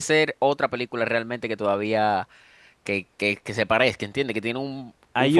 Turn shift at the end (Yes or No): Yes